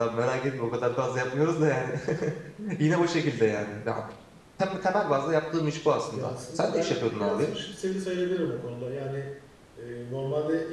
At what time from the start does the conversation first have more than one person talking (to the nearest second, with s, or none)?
6 s